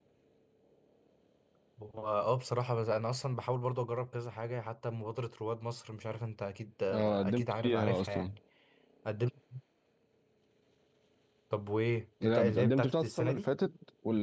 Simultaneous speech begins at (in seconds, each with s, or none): 6.9 s